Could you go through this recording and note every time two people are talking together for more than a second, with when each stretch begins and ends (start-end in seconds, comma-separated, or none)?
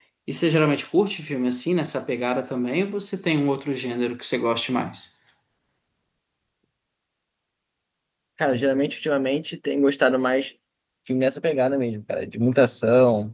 none